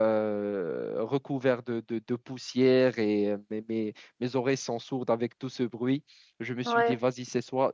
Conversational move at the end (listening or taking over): listening